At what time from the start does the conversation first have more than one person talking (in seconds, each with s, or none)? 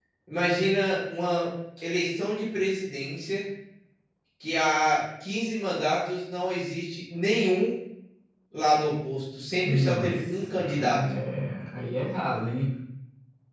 9.6 s